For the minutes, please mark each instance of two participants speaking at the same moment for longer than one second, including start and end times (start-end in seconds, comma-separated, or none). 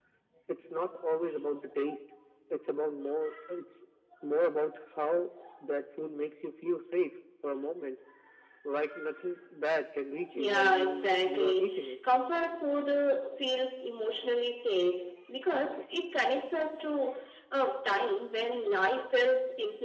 10.3-11.9